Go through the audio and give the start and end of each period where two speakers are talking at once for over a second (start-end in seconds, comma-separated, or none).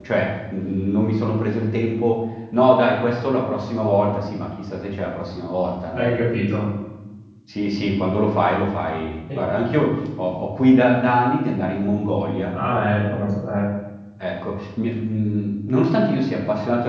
none